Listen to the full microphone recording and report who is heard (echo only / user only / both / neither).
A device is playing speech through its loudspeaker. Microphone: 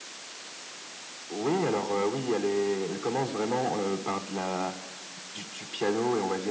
echo only